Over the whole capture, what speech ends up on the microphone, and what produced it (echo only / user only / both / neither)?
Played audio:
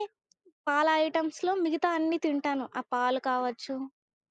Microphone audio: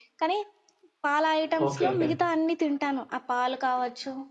both